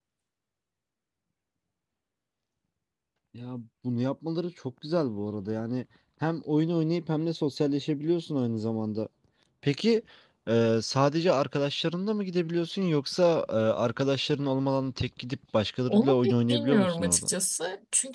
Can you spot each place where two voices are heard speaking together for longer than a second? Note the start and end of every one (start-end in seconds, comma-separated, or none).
15.9-17.3